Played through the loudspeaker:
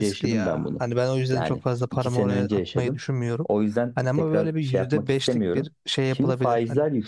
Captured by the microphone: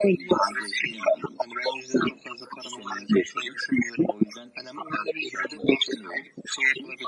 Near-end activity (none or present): none